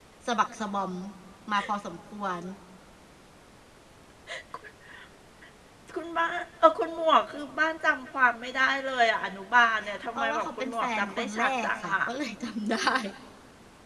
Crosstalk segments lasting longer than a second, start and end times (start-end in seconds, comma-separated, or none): 10.2-11.9